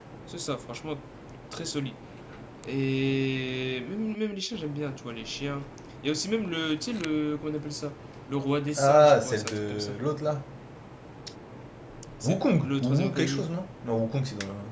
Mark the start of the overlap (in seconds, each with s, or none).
8.8 s